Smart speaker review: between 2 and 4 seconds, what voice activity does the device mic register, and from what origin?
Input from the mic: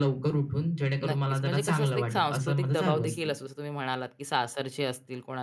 both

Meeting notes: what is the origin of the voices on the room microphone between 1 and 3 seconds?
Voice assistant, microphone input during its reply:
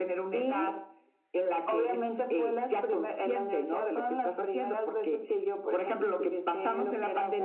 echo only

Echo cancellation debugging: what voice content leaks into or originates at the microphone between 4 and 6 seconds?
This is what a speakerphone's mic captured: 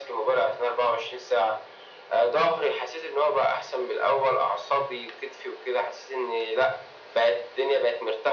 echo only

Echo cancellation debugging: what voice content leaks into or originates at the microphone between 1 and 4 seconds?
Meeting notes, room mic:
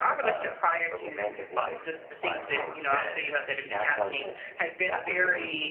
both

